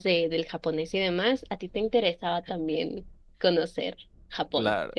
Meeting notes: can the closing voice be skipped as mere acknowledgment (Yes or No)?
No